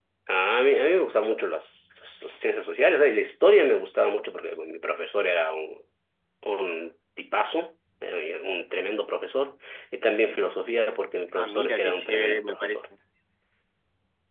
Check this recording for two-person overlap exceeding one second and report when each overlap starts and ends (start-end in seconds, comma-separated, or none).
11.4-12.8